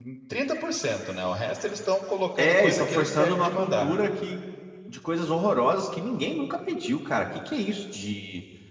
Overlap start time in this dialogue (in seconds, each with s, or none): 2.4 s